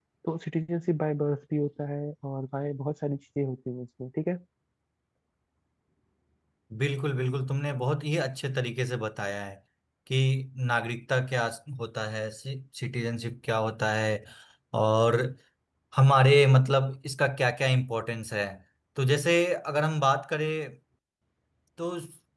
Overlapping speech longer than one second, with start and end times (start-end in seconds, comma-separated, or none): none